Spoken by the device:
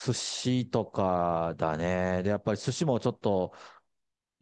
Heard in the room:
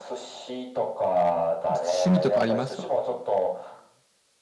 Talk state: both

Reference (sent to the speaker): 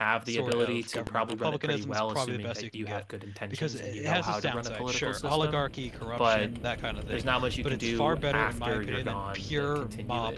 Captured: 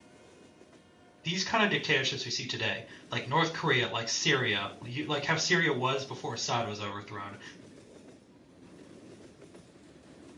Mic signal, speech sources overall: user only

